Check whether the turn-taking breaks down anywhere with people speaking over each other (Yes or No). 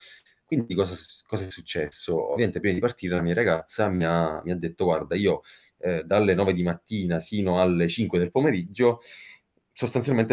No